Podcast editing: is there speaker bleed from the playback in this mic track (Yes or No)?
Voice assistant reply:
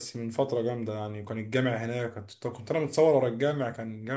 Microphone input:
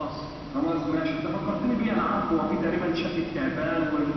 No